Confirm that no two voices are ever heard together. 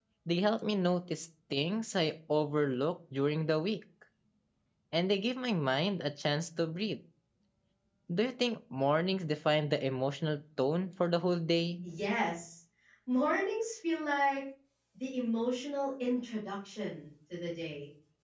Yes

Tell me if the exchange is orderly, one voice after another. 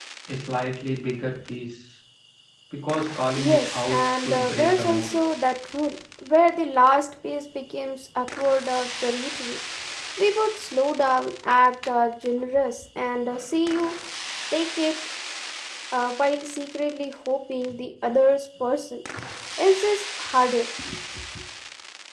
No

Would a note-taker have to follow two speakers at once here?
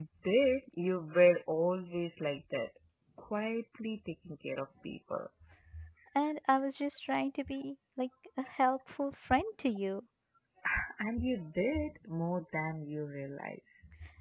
No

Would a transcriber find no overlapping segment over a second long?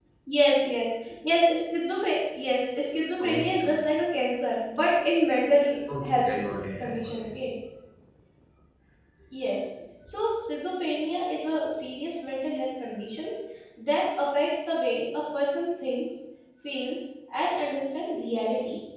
Yes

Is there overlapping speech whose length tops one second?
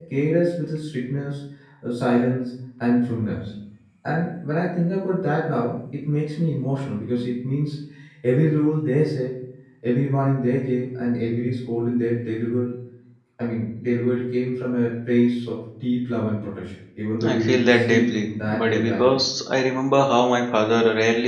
Yes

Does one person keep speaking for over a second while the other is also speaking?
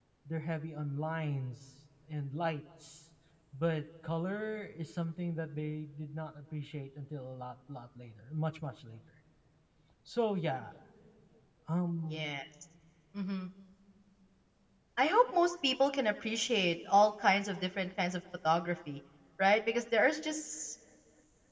No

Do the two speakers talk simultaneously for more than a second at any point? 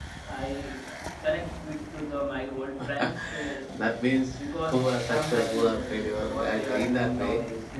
Yes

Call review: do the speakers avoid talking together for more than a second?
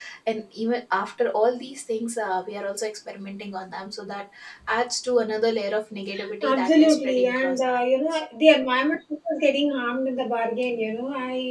No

